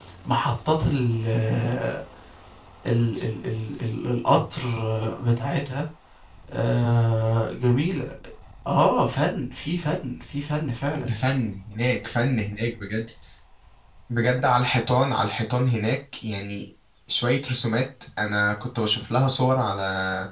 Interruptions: none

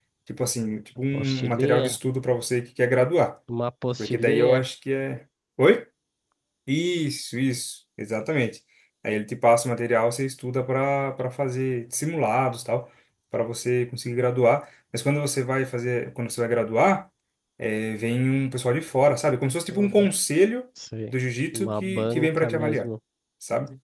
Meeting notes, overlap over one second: present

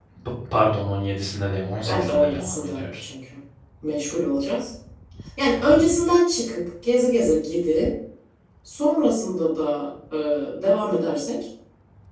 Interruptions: present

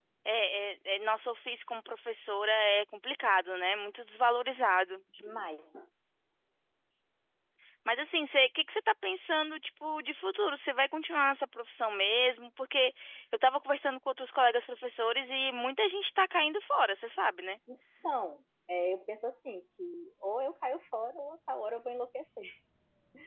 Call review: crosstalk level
none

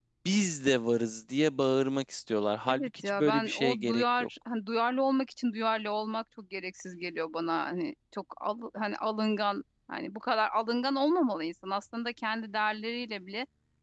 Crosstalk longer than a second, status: present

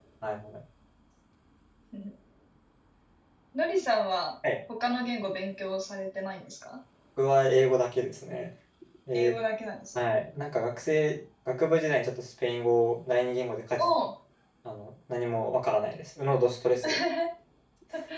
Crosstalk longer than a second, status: none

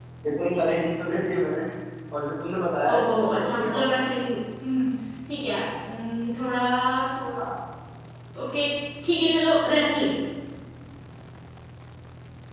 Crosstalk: present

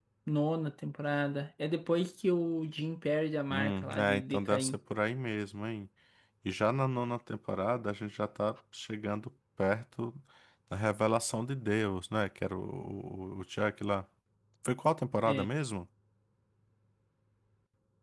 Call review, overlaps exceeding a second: present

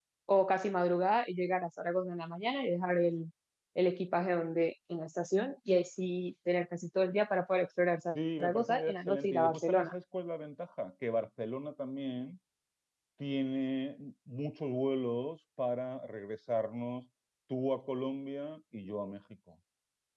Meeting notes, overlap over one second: present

